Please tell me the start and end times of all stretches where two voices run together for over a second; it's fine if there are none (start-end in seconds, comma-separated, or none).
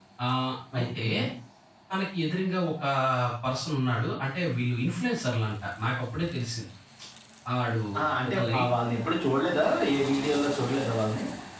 none